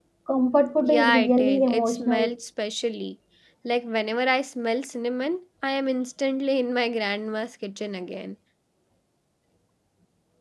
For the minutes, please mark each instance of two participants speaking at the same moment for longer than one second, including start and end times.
0.8-2.4

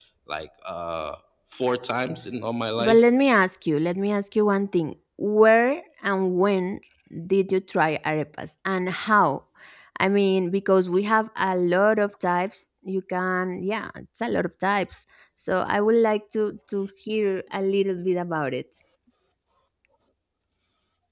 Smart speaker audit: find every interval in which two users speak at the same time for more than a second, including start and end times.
none

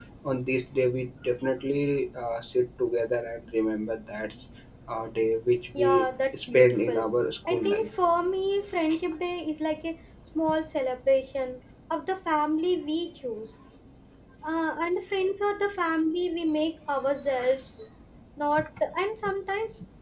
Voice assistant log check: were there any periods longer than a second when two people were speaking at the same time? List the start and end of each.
5.7-7.1

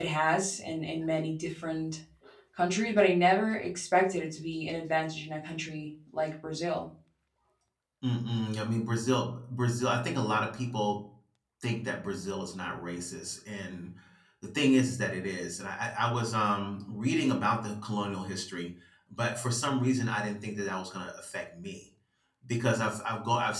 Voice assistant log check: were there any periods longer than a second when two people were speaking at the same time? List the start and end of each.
none

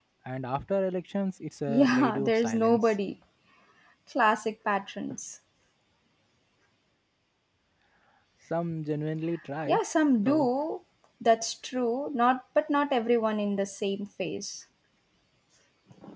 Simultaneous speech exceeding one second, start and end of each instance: 1.7-2.9

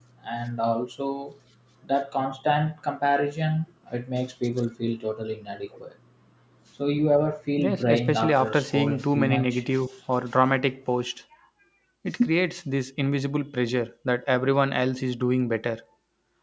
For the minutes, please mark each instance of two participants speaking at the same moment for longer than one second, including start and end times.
7.6-9.6

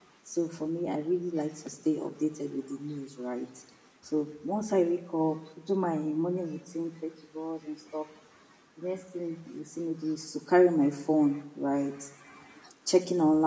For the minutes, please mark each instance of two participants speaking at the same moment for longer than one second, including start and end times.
none

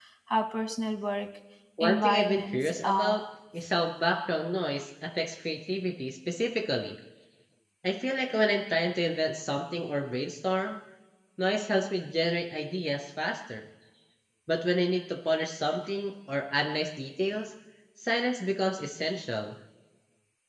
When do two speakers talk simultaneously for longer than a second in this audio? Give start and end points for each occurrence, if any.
1.8-3.2

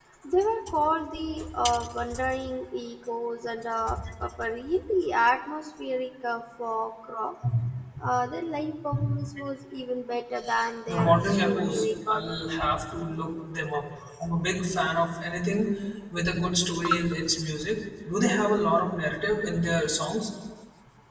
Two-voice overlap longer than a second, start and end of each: 10.9-12.6

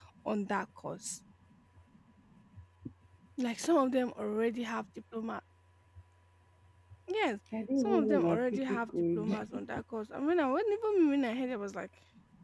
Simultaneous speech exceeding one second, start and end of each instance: 7.8-9.6

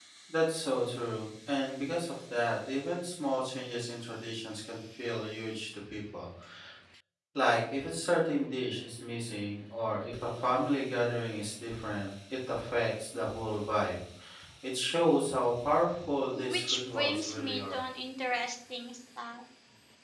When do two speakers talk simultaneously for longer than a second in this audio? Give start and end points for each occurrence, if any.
16.3-17.8

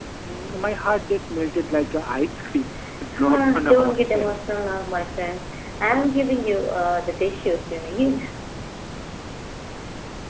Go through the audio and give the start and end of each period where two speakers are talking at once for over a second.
3.2-4.4

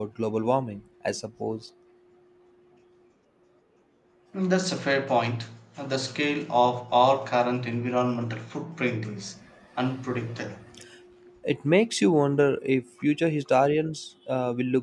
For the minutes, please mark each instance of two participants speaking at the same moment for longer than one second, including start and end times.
none

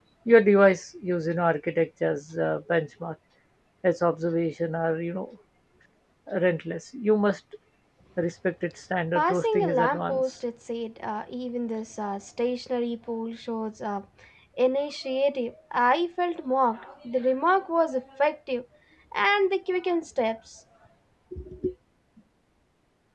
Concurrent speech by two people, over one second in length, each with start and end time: 9.2-10.4

